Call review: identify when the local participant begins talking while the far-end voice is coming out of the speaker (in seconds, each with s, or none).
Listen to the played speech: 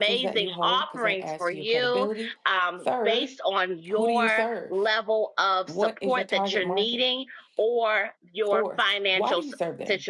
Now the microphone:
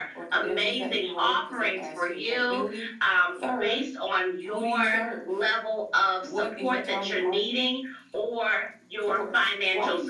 none